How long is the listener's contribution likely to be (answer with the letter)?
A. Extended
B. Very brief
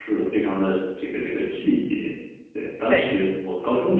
B